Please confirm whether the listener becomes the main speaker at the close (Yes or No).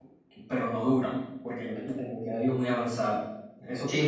Yes